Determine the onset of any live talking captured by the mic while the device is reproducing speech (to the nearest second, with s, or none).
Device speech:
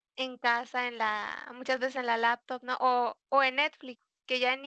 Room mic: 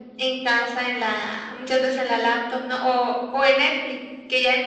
none